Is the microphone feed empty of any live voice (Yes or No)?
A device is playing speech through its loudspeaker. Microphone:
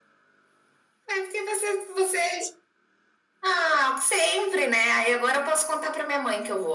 Yes